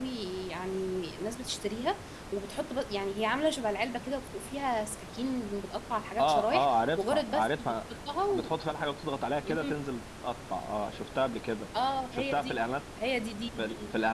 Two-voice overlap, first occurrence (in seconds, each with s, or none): 6.2 s